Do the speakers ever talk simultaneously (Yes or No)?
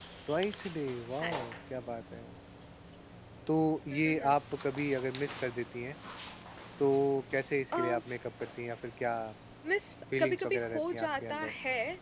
Yes